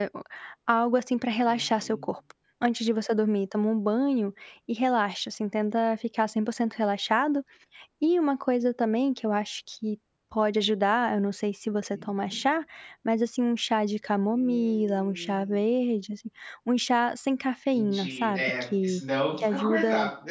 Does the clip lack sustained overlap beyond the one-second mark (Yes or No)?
No